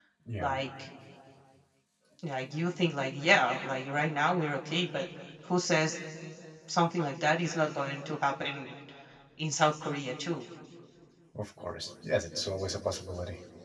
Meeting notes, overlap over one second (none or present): none